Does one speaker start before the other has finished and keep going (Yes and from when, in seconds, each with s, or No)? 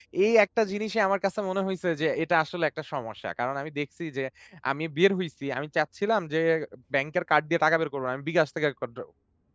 No